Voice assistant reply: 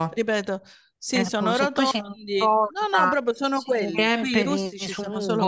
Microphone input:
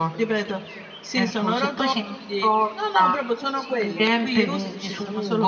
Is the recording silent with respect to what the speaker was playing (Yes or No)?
No